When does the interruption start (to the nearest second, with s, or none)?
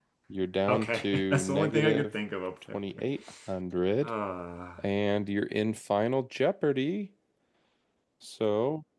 1 s